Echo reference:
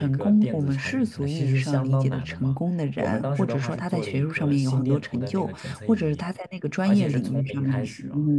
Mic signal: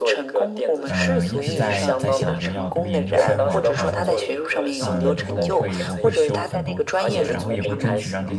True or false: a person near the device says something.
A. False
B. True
B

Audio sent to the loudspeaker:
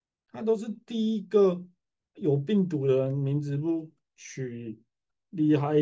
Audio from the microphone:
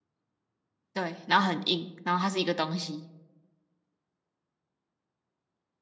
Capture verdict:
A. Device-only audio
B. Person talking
B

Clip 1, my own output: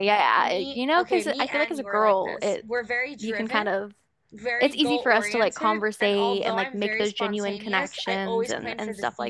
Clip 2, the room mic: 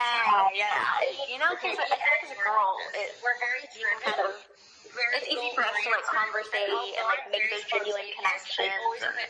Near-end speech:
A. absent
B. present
A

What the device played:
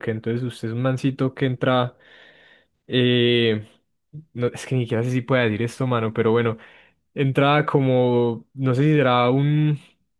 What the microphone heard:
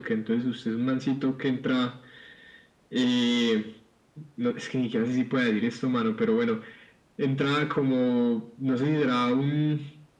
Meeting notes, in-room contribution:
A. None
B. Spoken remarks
A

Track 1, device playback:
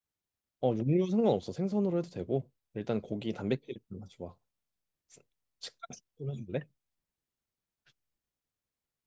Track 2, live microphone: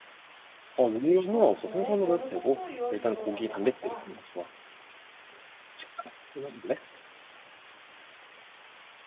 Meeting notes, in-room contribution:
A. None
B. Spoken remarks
B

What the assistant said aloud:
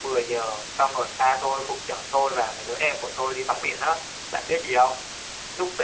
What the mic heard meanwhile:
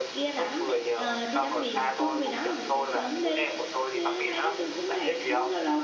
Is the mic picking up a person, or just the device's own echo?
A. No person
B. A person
B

